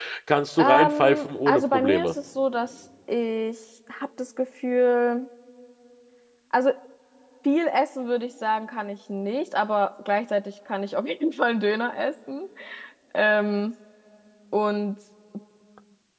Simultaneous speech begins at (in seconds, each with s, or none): 0.6 s